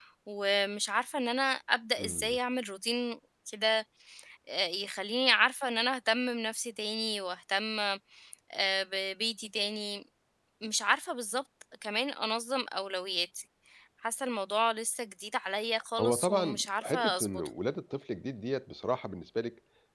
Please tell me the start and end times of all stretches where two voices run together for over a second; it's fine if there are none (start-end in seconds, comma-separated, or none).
16.0-17.5